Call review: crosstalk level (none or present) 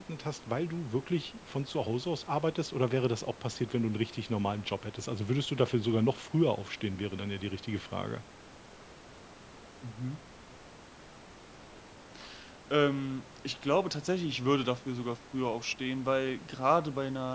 none